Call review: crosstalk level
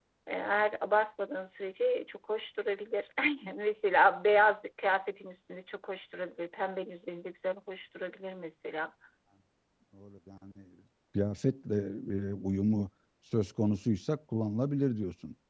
none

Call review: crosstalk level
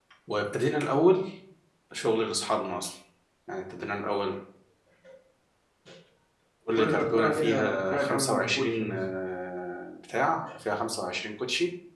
present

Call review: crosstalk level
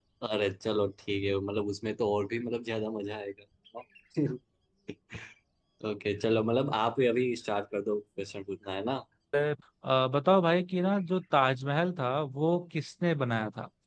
none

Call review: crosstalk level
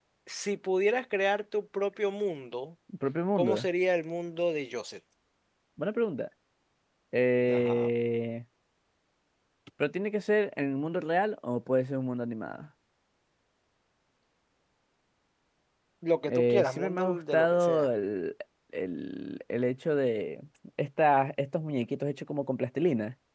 present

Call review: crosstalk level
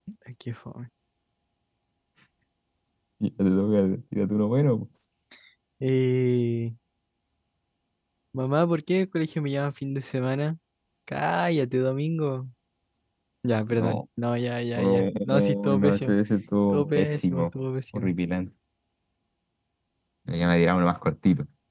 present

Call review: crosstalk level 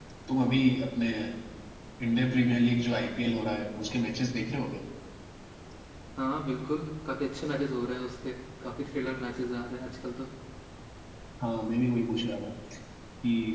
none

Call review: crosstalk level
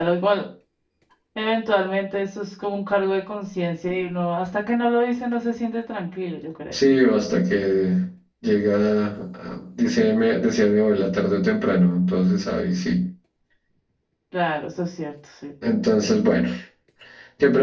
none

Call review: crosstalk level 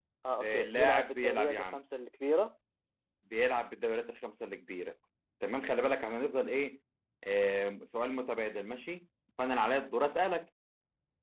present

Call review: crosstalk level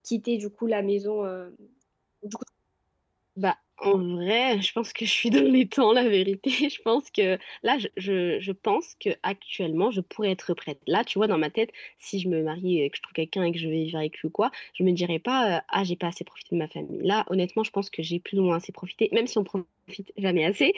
none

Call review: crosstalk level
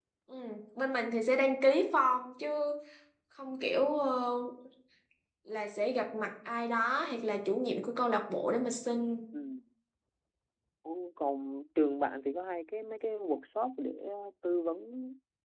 none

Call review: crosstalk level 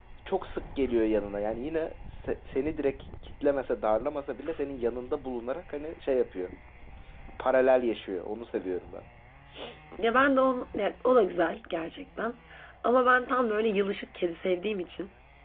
none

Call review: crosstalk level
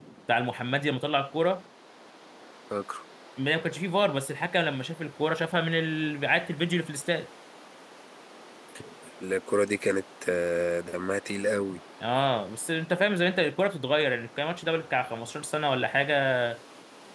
none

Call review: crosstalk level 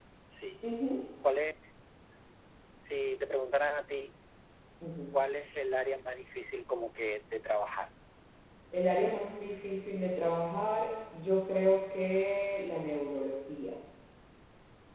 none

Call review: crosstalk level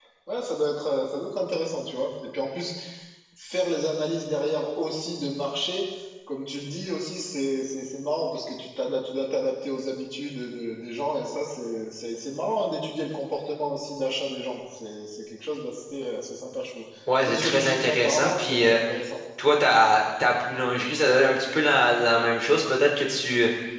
present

